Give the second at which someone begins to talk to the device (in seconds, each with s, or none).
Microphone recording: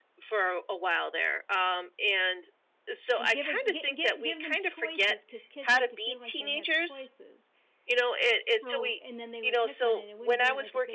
3.2 s